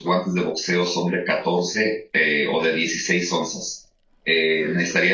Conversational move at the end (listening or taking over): listening